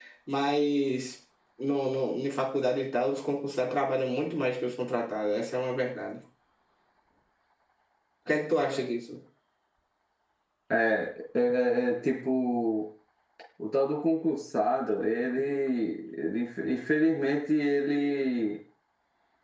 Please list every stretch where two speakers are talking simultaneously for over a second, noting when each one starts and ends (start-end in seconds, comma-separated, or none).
none